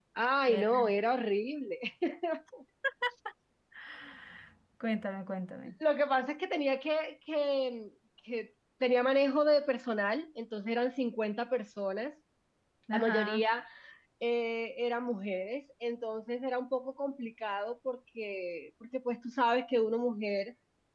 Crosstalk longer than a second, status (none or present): none